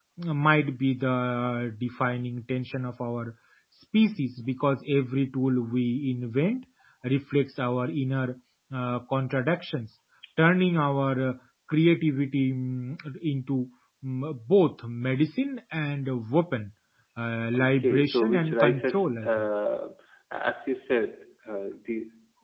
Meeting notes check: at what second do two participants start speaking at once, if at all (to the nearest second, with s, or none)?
18 s